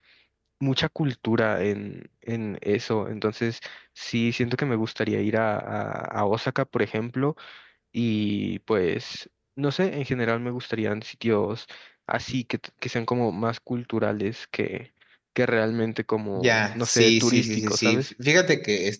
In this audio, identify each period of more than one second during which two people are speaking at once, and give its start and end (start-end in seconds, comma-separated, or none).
16.4-18.1